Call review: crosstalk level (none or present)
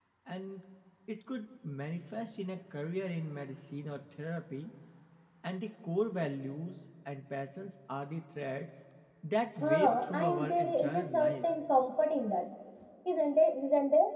present